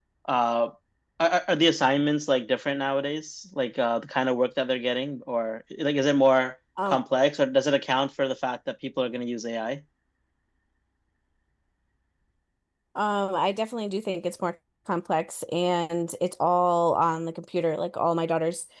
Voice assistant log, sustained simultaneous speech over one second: none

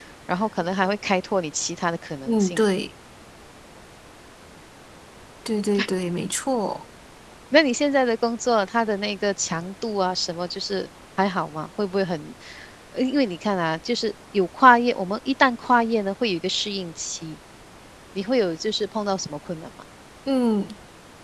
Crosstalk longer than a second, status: none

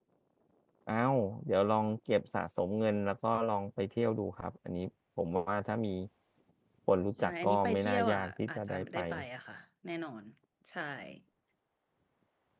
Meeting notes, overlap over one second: present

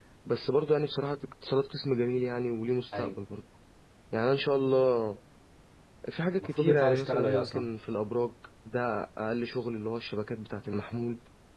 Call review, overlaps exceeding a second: present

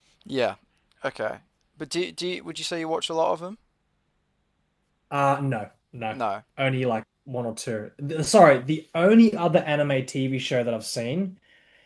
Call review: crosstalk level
none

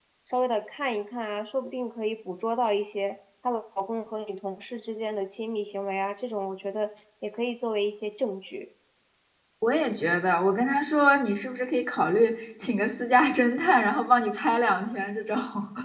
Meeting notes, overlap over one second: none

